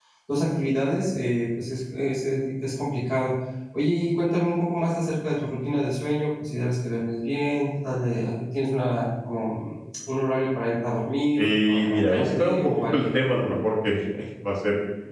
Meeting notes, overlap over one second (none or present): present